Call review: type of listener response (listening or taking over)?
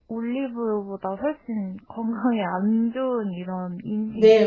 taking over